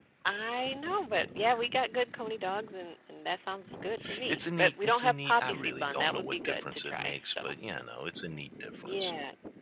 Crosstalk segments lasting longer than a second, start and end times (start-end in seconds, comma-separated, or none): 4.3-7.4